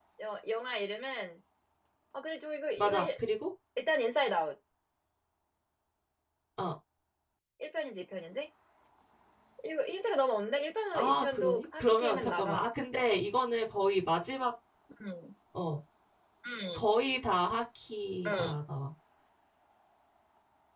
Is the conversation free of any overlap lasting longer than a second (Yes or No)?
No